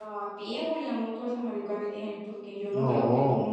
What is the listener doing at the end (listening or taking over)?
listening